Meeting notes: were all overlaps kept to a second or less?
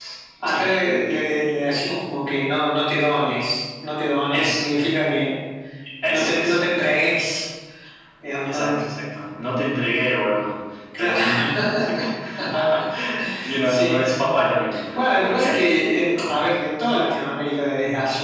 No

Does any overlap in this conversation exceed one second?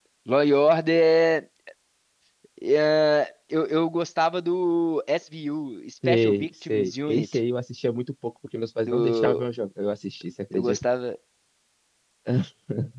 Yes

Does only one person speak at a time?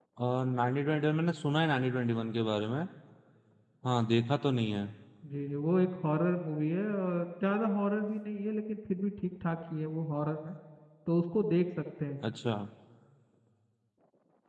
Yes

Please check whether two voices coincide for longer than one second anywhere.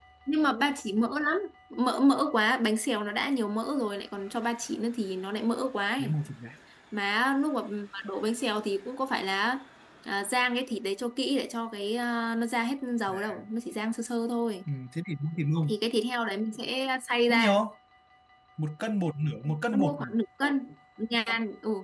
No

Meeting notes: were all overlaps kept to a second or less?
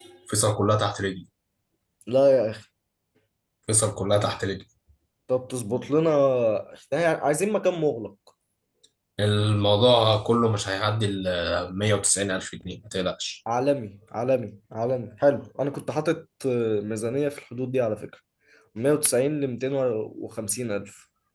Yes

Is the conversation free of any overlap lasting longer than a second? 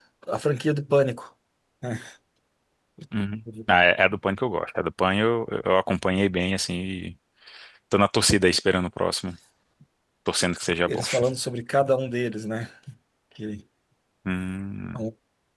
Yes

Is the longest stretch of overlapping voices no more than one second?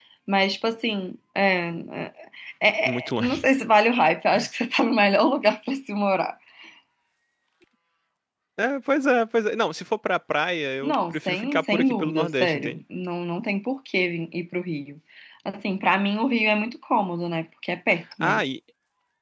No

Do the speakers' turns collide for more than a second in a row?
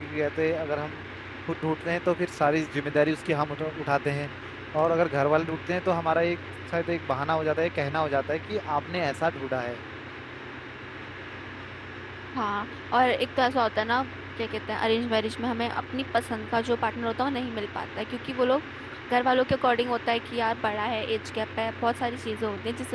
No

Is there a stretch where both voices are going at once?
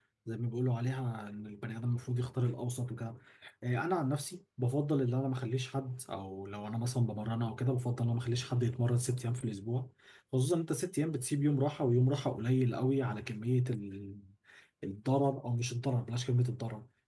No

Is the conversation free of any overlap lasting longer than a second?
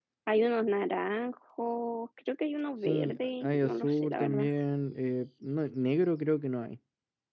No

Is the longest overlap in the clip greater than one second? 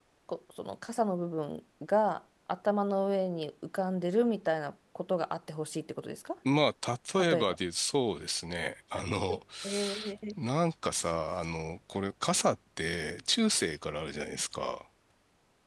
No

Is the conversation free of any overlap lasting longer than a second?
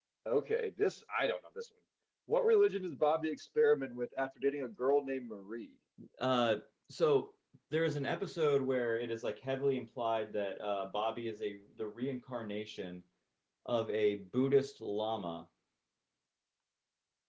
Yes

